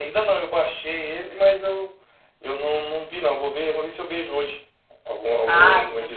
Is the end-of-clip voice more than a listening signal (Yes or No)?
Yes